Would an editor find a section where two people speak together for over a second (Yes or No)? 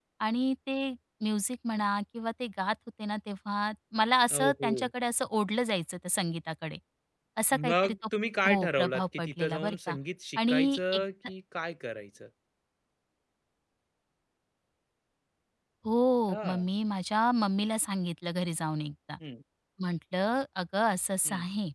Yes